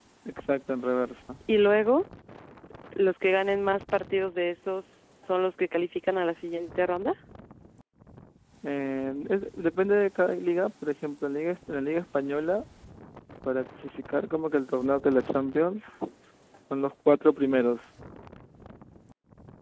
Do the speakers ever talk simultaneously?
No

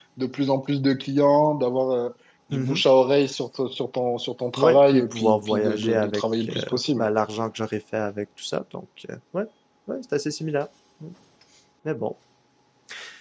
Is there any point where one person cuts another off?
Yes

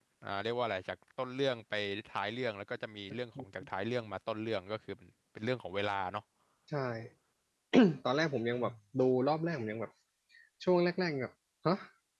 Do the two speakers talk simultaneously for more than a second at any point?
No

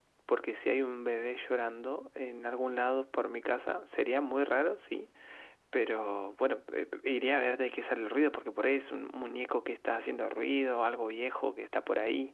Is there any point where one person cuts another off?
No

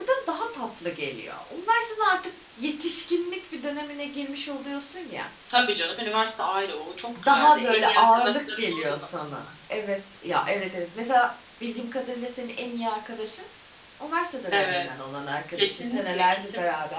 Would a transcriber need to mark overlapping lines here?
Yes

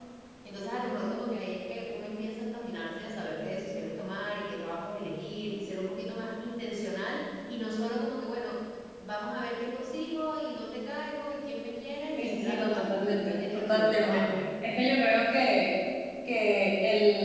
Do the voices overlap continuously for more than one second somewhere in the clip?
Yes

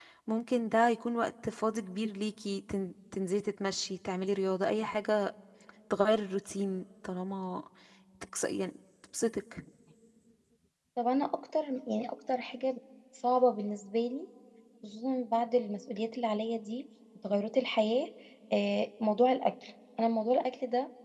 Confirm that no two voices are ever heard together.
Yes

